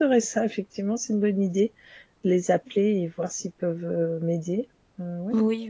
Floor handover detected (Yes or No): Yes